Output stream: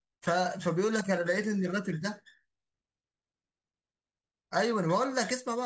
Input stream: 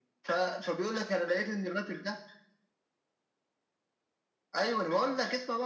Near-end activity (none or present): none